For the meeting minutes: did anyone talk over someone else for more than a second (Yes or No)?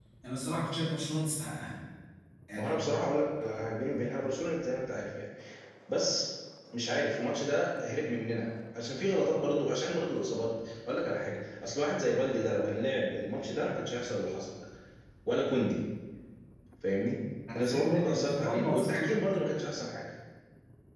Yes